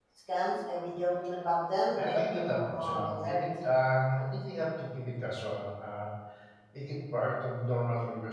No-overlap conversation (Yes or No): No